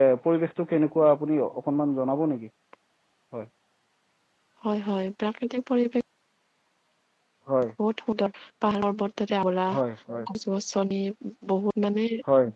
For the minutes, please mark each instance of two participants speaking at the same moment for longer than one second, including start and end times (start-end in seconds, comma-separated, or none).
none